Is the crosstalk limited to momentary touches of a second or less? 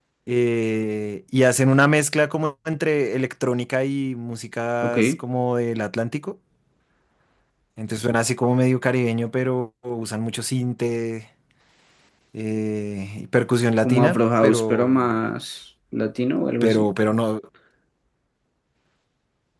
No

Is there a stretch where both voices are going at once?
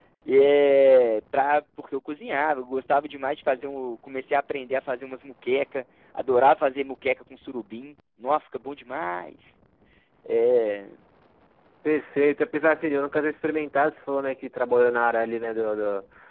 No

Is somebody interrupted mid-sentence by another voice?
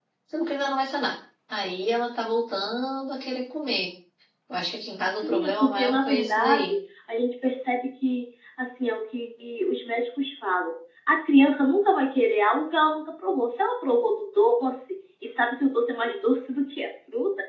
Yes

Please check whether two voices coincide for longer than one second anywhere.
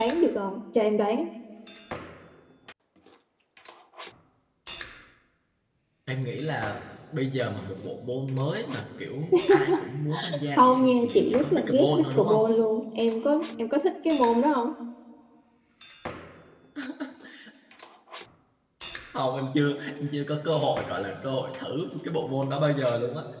Yes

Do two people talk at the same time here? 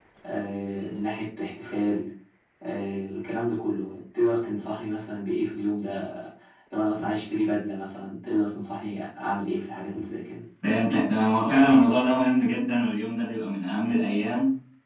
No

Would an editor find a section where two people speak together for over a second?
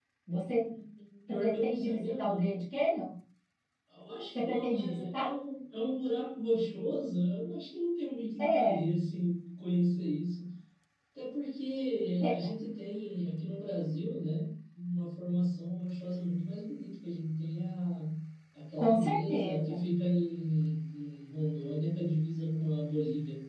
Yes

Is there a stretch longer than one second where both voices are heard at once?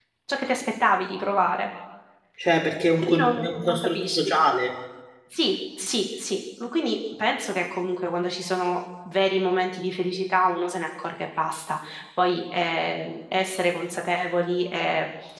Yes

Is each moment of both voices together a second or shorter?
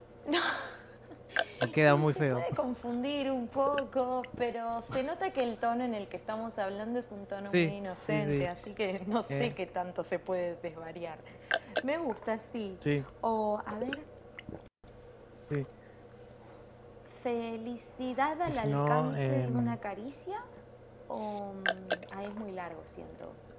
No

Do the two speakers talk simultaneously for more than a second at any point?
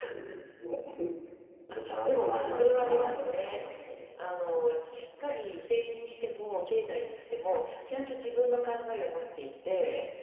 Yes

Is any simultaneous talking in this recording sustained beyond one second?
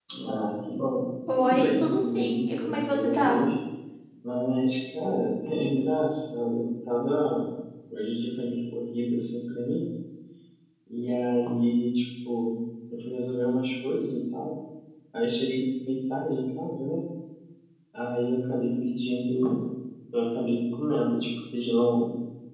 Yes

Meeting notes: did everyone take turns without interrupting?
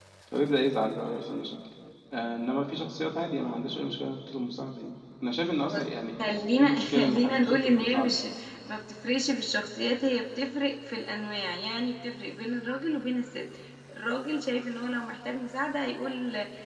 No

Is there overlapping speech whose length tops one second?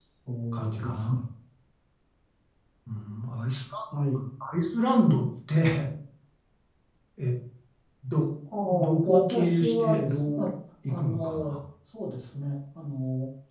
Yes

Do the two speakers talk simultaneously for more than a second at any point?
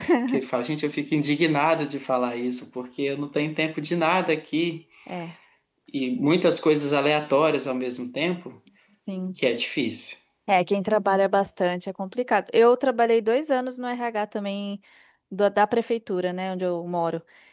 No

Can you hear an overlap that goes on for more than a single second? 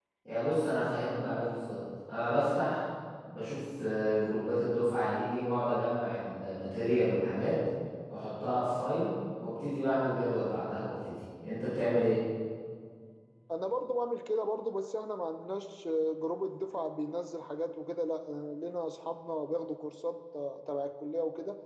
No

